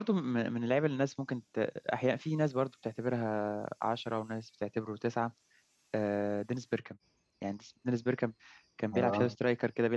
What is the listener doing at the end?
listening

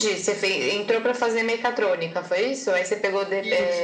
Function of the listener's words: listening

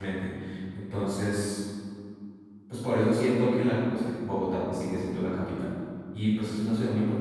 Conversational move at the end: listening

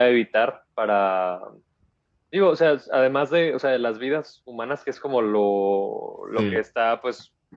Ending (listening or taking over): listening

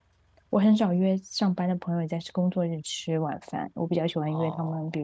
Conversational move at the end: listening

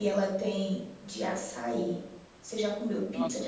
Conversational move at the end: taking over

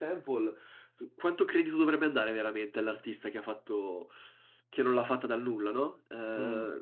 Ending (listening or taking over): listening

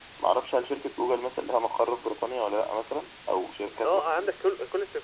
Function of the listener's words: taking over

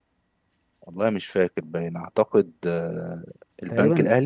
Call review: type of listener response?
taking over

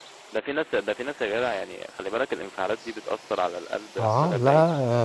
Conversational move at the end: taking over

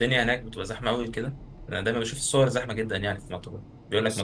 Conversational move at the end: listening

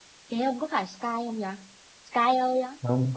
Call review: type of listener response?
taking over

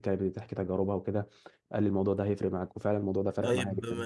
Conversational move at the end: taking over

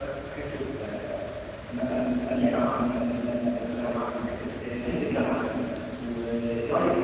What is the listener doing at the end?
listening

